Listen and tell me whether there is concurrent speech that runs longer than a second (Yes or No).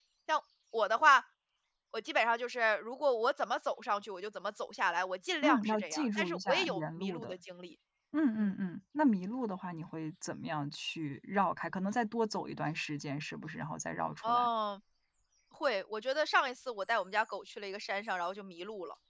Yes